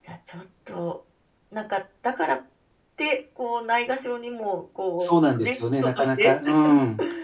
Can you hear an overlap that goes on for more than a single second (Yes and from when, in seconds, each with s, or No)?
Yes, from 5.0 s